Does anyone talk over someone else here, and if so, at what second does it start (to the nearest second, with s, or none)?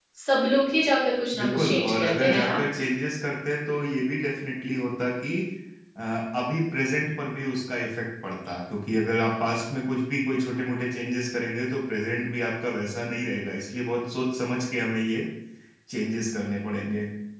1 s